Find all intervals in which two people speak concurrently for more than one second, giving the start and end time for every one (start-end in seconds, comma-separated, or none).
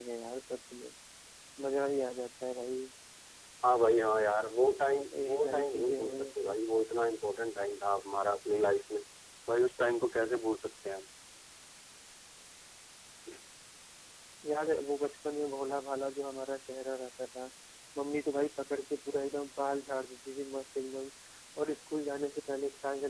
5.1-6.5